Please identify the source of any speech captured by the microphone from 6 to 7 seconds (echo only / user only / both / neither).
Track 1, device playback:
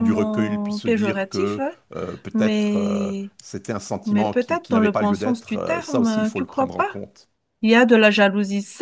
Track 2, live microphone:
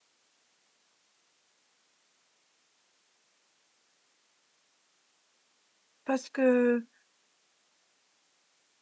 user only